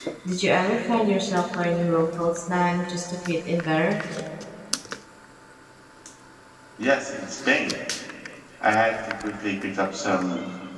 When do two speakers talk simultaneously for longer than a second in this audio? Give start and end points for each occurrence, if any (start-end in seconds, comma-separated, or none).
none